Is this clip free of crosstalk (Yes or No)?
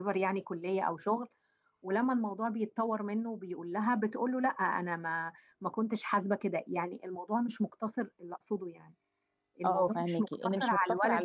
No